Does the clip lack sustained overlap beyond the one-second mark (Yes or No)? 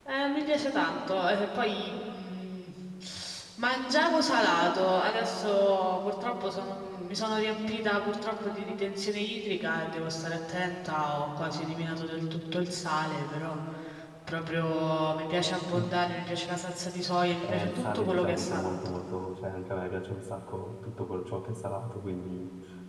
No